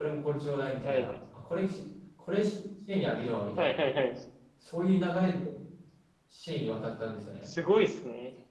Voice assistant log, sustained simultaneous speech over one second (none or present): none